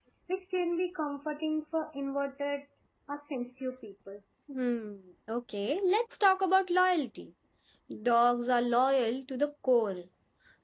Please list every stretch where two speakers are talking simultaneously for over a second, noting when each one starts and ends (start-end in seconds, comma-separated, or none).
none